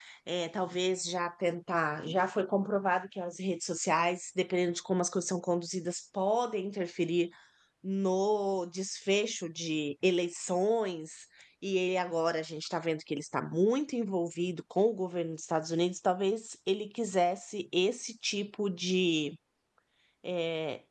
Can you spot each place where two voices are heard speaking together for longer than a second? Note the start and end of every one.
none

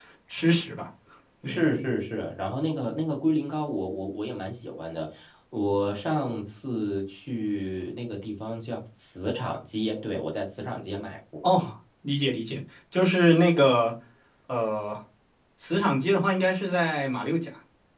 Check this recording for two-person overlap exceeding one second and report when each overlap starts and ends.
none

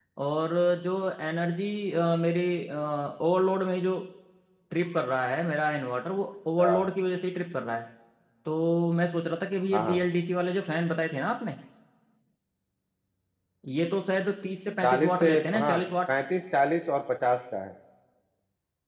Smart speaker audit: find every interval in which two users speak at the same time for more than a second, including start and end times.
14.8-16.1

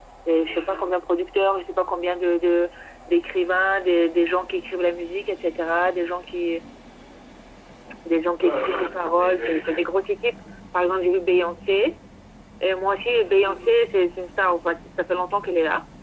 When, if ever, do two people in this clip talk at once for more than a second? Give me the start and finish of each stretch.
none

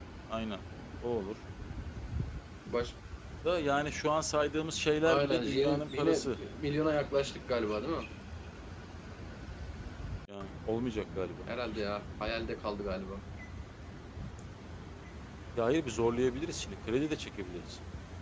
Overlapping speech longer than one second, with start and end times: 5.0-6.3

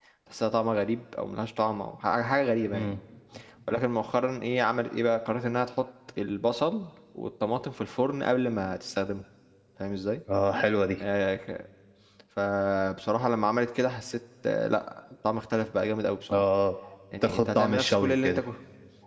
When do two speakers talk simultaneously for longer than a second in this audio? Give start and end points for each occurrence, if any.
17.2-18.4

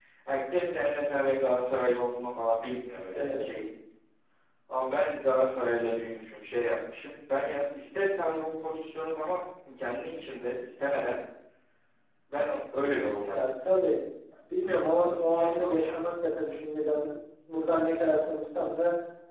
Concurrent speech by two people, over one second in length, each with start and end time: 14.8-16.0

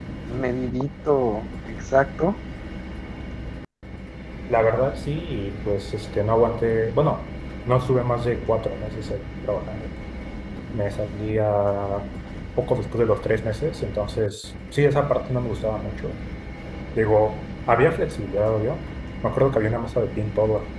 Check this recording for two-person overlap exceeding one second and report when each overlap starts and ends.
none

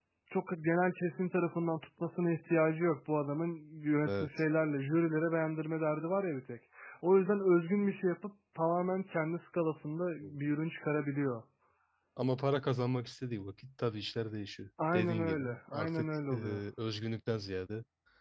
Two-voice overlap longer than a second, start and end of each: 14.9-16.3

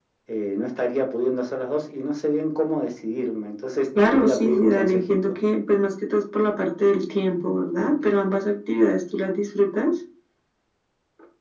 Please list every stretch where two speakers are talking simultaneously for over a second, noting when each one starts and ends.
4.0-5.4

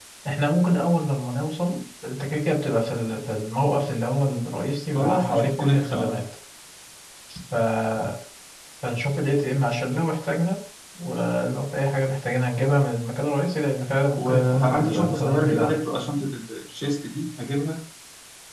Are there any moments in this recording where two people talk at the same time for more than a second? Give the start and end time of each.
4.9-6.2, 14.2-15.8

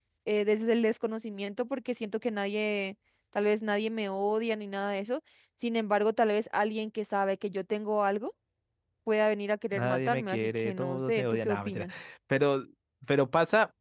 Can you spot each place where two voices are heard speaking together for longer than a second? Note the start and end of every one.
9.7-11.9

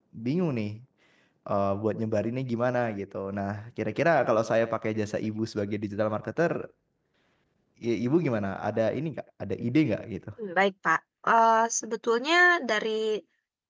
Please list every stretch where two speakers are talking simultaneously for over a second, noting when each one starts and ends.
none

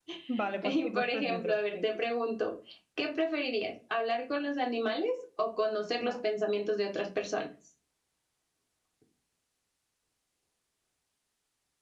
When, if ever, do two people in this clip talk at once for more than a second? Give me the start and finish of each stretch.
0.6-1.9

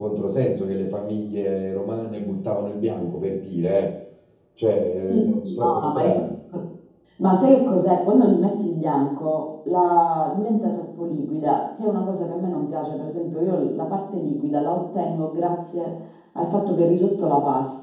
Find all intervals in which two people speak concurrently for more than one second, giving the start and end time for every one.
5.0-6.2

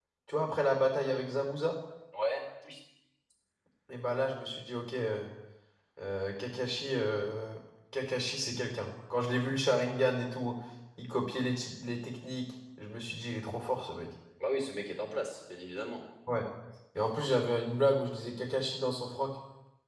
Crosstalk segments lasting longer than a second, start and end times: none

